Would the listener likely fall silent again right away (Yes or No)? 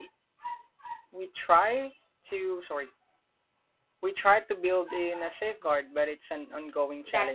No